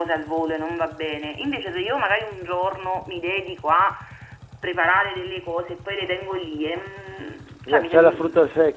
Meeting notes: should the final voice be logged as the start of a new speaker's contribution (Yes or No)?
Yes